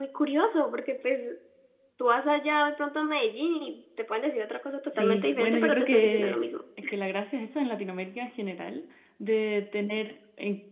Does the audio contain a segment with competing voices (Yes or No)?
Yes